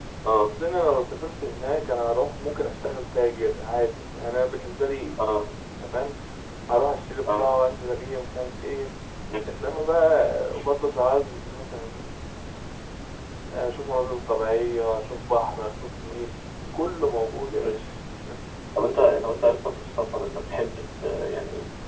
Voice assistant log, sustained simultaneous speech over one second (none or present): none